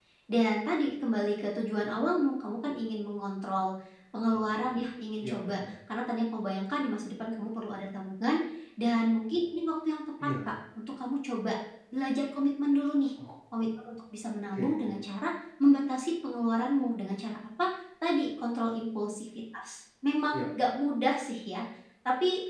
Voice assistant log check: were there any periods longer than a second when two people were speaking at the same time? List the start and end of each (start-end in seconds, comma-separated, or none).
none